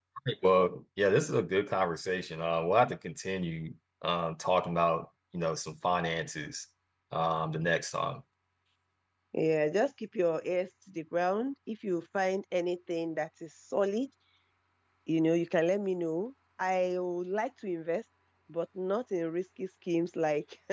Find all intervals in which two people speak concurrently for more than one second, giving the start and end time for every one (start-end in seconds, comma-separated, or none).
none